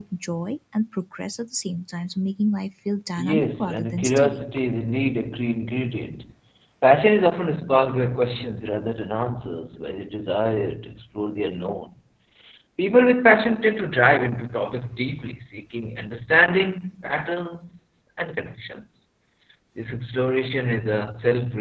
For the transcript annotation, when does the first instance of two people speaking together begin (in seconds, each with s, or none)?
3.2 s